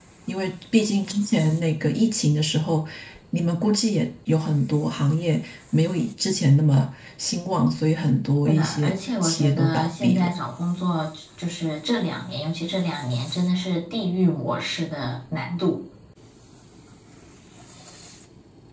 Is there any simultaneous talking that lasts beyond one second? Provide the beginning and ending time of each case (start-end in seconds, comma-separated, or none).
8.4-10.3